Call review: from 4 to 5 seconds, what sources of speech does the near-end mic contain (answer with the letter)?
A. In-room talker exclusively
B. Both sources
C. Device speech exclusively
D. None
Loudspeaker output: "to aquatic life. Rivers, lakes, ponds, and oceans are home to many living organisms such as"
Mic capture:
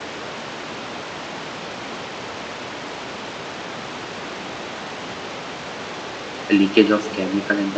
D